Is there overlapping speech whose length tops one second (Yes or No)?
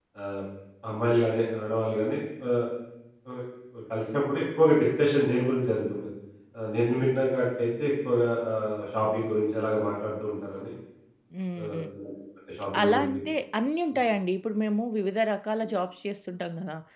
No